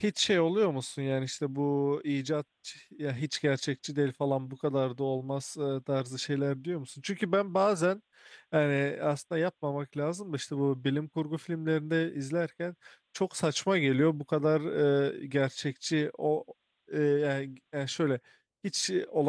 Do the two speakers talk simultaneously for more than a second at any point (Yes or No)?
No